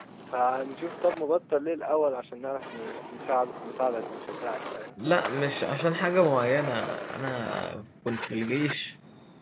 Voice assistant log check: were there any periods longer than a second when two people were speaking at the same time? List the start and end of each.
none

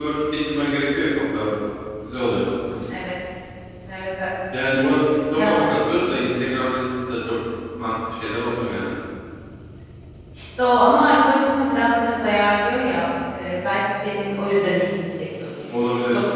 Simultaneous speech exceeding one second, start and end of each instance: none

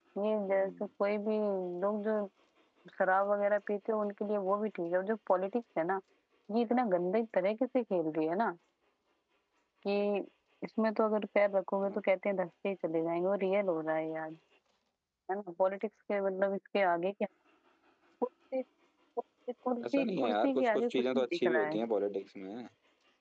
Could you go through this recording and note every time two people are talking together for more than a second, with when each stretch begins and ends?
19.9-21.8

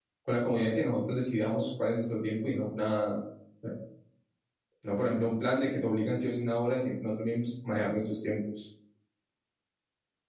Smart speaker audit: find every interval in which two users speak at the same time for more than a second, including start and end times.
none

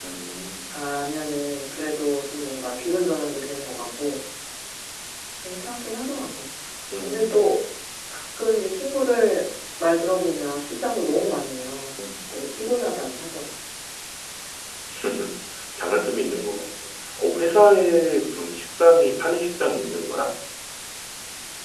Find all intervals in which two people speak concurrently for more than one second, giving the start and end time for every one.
none

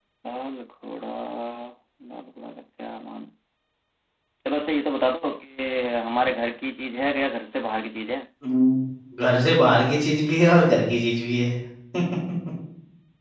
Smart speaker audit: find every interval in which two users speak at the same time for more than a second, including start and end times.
none

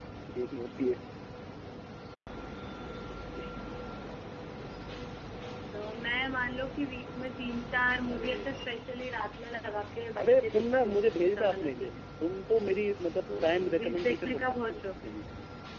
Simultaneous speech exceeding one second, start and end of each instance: 10.2-11.9, 13.4-15.1

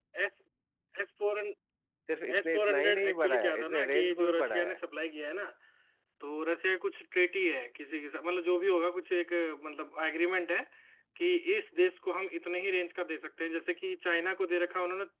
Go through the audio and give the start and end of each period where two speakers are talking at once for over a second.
2.4-4.8

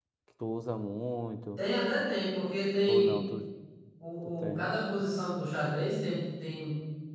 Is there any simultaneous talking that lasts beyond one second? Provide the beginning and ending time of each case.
none

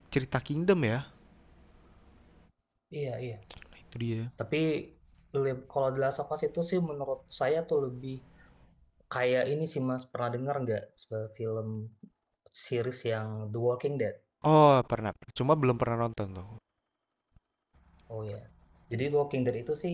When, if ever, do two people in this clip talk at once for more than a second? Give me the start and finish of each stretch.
none

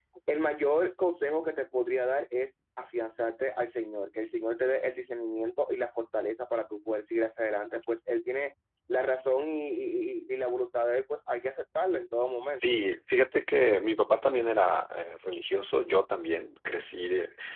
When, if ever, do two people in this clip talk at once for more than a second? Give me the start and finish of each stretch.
none

